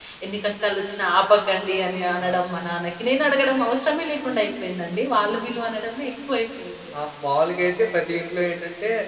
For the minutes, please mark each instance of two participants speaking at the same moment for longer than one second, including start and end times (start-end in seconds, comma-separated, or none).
none